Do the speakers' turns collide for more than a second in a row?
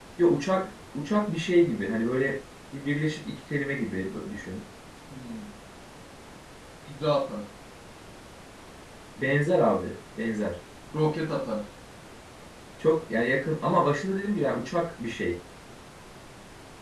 No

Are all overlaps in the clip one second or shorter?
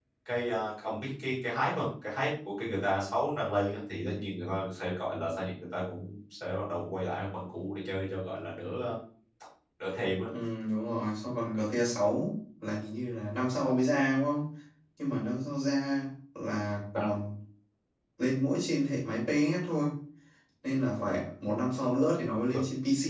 Yes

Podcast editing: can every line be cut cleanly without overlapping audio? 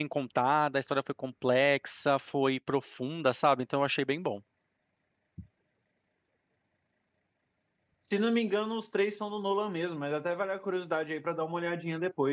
Yes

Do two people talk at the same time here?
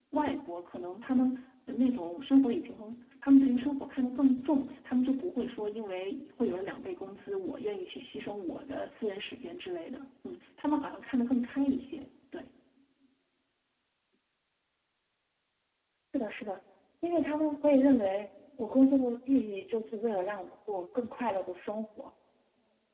No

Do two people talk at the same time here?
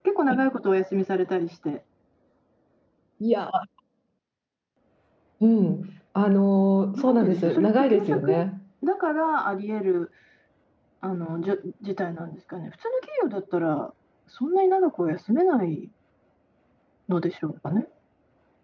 Yes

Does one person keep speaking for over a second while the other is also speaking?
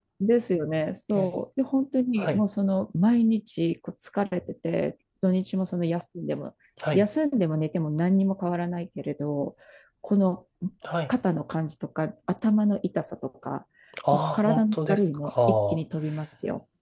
Yes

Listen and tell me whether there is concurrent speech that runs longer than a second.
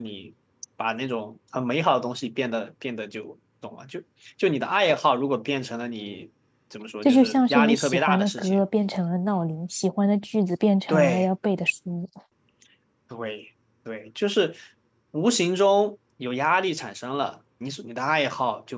Yes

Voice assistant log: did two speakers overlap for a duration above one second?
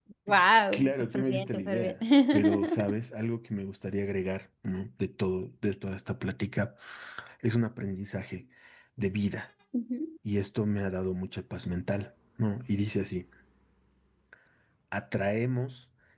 Yes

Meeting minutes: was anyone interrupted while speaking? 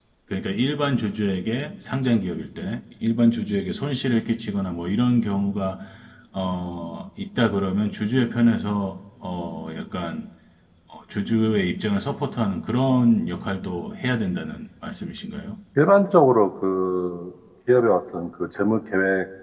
No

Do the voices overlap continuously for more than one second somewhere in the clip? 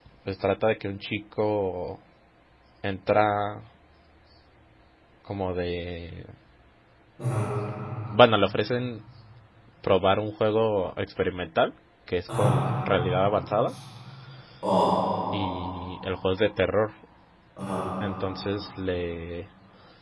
No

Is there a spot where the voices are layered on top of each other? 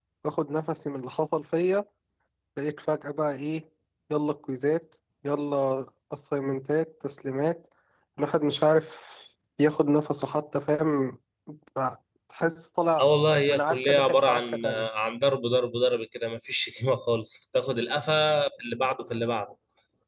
Yes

